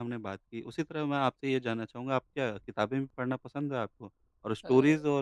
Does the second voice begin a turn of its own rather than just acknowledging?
No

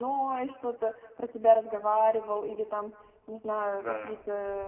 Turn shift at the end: No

